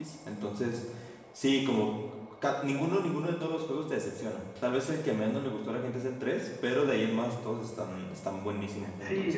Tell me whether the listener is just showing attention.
No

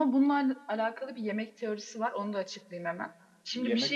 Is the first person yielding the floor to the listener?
No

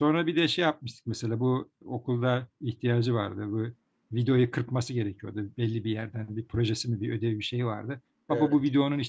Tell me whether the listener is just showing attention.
Yes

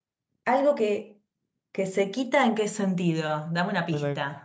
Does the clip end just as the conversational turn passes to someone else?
Yes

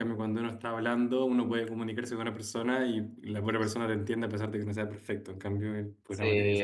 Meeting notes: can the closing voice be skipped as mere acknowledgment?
No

